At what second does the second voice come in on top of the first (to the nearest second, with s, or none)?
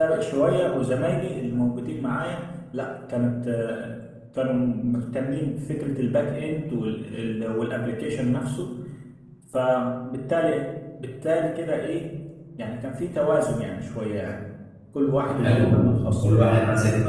15 s